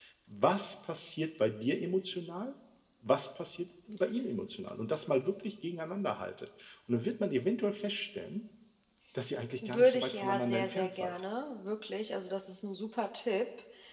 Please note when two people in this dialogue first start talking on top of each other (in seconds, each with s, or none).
9.6 s